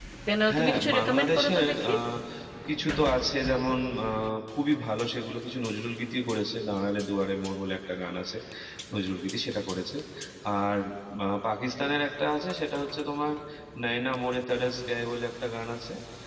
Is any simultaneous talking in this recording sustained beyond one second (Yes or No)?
Yes